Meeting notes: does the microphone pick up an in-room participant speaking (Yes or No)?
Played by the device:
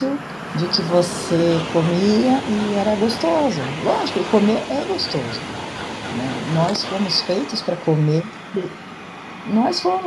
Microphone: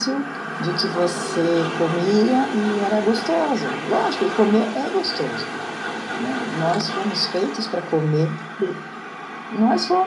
No